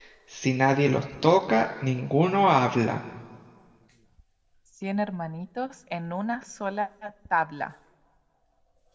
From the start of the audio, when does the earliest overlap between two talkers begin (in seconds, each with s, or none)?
none